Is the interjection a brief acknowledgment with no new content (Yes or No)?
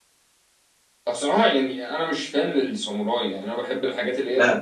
No